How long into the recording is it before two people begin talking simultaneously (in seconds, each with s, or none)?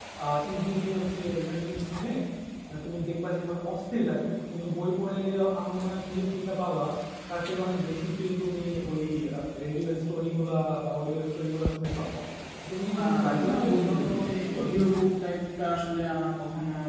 13.0 s